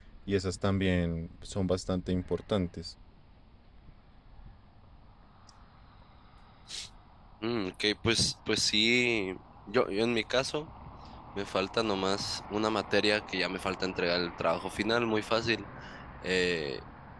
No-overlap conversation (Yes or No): Yes